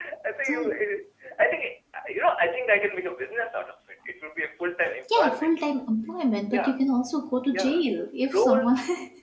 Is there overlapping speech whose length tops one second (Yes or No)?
No